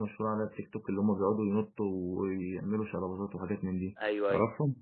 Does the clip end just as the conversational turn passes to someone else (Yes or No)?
Yes